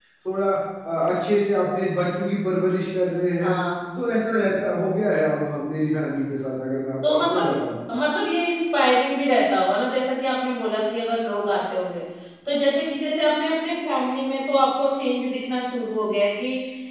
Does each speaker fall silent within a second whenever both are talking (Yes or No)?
Yes